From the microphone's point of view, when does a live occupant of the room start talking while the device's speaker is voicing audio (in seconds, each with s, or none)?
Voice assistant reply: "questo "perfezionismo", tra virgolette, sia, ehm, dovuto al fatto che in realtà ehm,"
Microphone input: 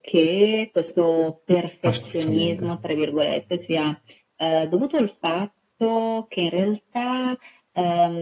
1.9 s